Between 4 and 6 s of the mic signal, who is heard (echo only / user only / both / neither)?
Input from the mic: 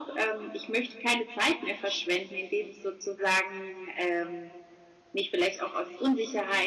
echo only